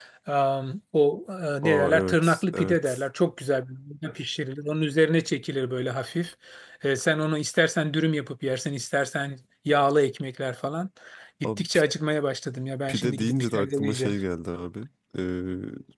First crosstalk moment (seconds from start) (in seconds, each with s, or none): 1.6 s